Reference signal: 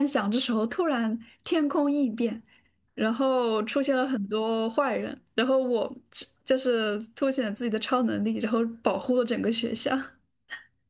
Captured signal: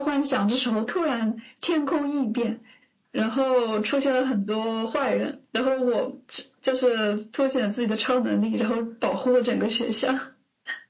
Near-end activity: none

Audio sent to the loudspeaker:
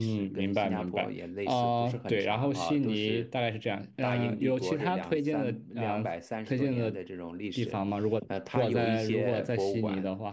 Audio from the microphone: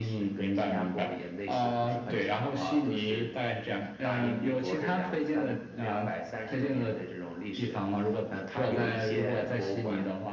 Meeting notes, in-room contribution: none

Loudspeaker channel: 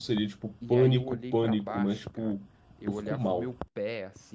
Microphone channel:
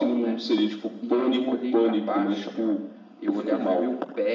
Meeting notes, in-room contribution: none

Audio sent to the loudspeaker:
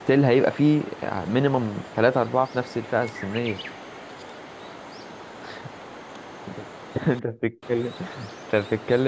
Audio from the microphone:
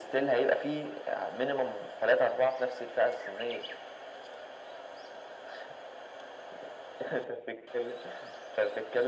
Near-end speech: none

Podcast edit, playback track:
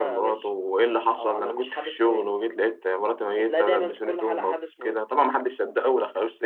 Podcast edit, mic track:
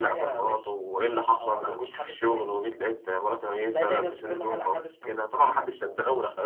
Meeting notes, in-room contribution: none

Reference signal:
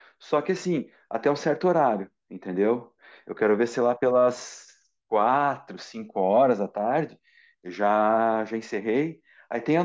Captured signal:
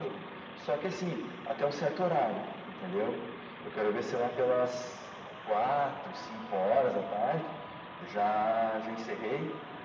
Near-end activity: none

